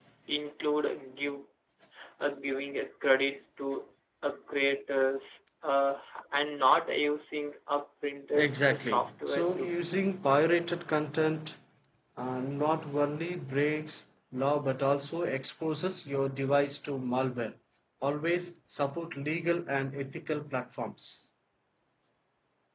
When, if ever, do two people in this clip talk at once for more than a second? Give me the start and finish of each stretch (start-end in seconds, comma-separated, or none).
8.3-9.7